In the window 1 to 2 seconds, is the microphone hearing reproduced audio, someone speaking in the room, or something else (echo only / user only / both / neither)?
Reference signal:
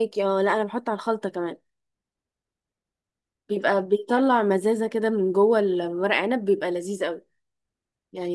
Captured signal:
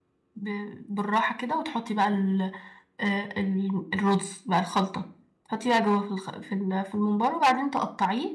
user only